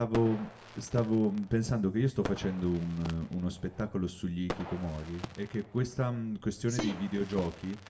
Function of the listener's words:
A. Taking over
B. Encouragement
B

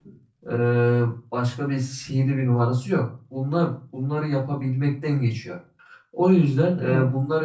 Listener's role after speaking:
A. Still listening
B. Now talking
A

